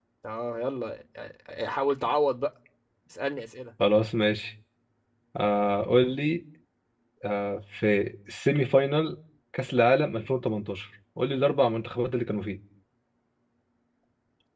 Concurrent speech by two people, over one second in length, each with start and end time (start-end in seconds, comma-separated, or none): none